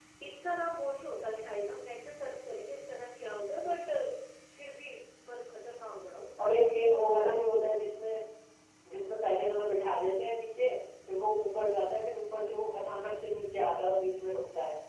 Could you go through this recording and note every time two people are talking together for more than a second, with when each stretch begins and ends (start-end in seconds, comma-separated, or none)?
6.4-7.7